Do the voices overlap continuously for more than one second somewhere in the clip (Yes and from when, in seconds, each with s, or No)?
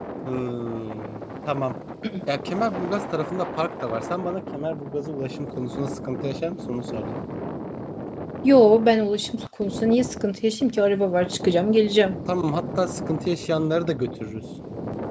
No